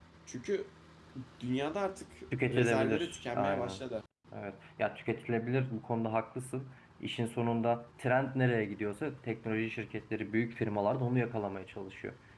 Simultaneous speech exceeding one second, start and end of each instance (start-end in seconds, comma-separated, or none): 2.4-3.8